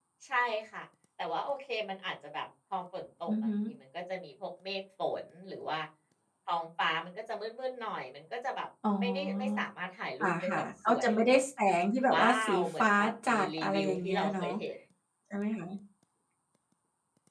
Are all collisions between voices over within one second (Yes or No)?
No